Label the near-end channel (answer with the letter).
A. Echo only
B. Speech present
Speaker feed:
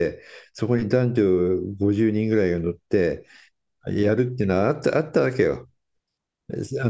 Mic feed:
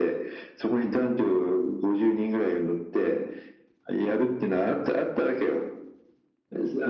A